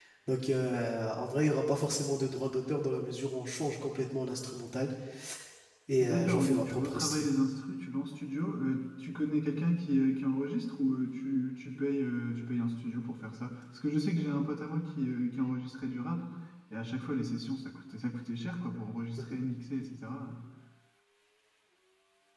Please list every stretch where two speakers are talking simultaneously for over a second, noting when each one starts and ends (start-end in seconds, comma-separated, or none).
6.0-7.2